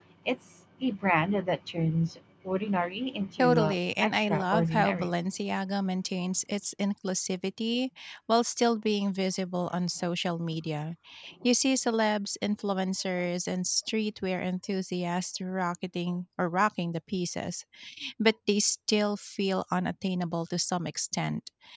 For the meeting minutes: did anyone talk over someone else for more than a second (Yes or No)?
Yes